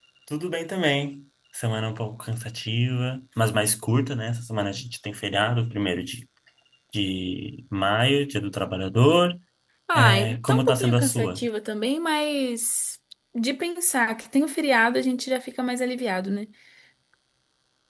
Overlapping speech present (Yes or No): Yes